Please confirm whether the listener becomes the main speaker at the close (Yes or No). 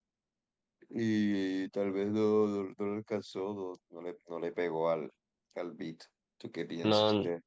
Yes